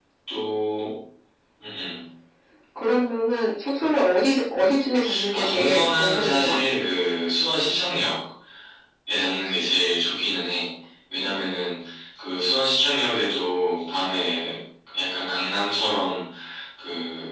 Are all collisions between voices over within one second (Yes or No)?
No